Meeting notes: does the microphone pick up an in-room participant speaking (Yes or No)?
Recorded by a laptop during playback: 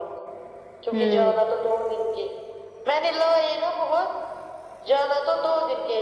Yes